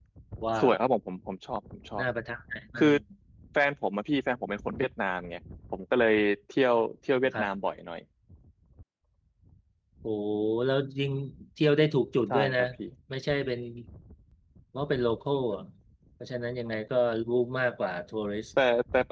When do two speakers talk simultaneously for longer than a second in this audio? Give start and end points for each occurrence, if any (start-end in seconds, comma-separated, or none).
none